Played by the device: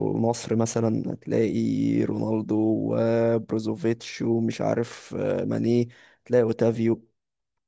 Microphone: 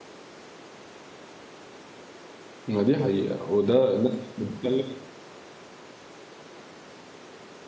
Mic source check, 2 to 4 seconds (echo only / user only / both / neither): user only